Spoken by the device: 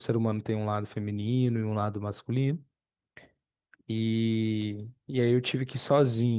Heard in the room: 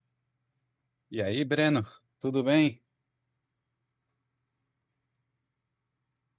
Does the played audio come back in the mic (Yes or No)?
No